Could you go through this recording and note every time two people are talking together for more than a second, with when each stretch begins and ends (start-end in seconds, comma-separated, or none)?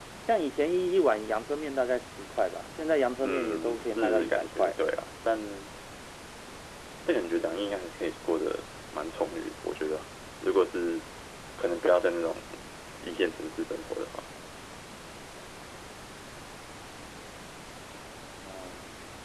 3.2-4.7